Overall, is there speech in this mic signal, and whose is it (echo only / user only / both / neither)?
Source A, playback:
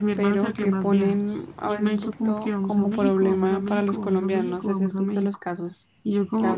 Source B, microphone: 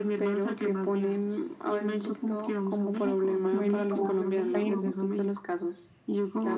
both